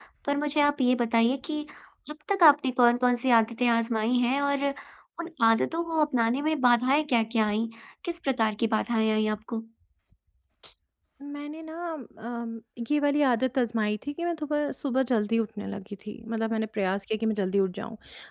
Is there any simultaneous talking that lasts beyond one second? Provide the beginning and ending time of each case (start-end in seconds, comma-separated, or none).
none